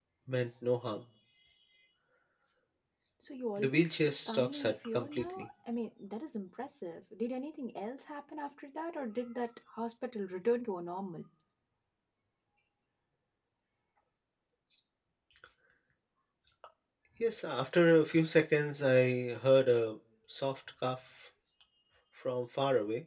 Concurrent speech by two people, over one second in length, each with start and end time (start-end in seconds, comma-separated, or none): 3.6-5.5